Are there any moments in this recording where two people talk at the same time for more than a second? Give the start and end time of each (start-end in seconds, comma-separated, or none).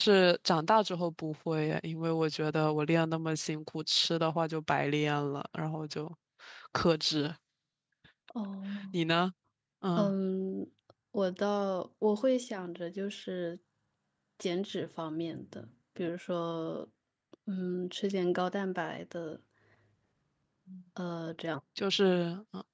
none